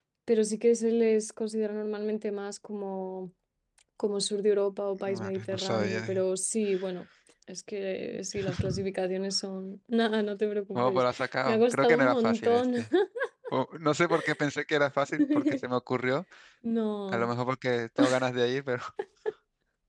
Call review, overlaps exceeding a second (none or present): present